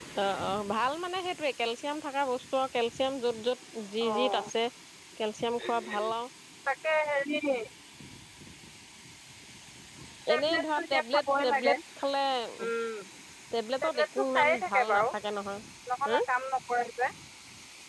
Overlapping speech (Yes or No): Yes